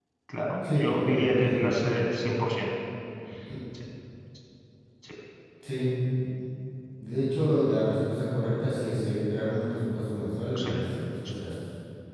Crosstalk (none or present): present